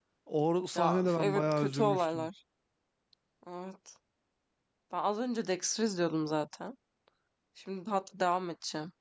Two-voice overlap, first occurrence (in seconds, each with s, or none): 0.8 s